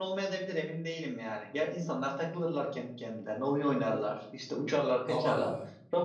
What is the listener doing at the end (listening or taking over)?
listening